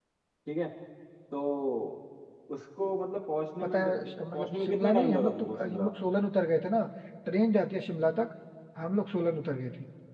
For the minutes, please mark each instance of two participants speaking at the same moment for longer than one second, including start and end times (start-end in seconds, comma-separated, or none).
3.6-5.9